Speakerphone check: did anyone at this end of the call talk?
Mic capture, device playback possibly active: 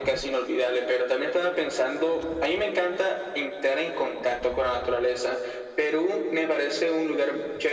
No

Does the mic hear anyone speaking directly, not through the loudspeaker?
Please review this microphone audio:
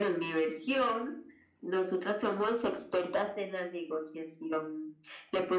No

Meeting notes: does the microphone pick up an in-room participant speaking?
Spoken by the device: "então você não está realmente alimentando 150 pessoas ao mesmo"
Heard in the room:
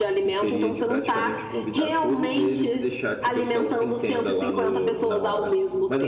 Yes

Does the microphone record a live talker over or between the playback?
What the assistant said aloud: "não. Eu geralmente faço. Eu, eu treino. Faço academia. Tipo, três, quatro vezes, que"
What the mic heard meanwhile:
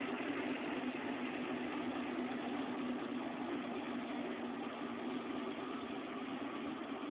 No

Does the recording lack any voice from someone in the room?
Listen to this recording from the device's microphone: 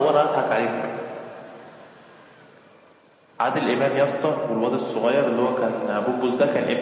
Yes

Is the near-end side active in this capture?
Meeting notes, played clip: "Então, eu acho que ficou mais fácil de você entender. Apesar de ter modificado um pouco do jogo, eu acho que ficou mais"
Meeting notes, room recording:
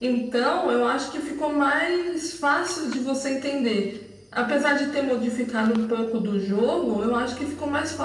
No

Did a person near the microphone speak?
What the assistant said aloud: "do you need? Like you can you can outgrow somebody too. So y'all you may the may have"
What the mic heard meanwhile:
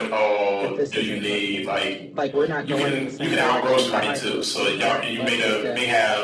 Yes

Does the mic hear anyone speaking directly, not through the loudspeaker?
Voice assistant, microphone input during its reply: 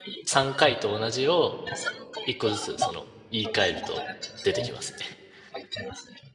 Yes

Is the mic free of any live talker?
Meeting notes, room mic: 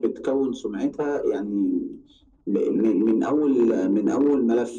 Yes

